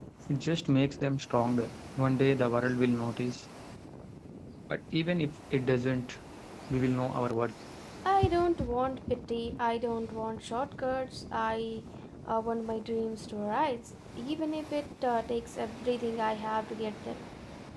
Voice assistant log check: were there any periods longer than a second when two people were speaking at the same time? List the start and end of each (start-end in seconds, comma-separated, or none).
none